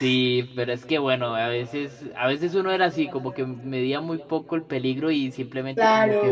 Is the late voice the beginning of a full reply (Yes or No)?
No